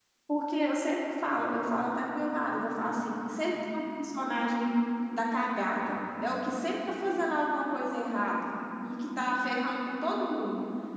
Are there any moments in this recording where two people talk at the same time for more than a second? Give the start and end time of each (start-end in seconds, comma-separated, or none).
none